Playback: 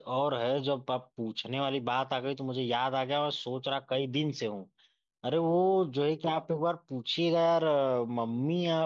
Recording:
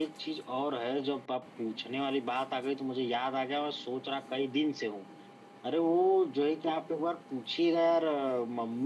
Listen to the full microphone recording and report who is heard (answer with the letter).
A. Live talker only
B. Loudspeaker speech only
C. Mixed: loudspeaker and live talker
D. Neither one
B